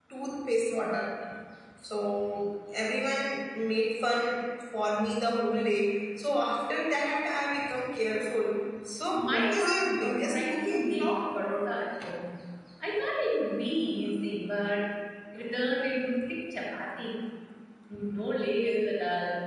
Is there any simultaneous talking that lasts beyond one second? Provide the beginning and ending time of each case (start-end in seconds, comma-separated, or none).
9.1-11.1